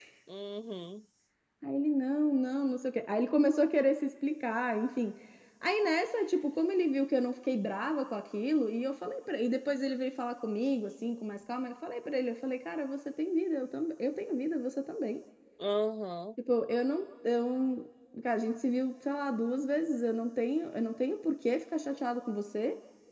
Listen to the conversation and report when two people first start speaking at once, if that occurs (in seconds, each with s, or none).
none